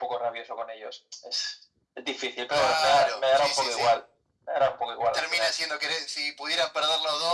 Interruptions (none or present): present